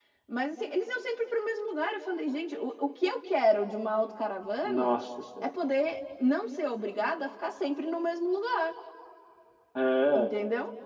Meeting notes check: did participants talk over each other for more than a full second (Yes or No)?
No